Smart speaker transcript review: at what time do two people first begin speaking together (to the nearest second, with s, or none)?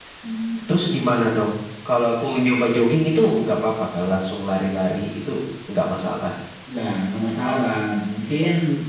none